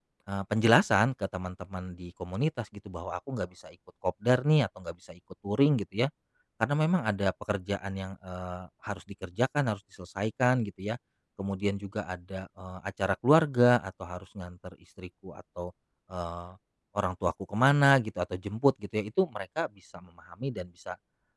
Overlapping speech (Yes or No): No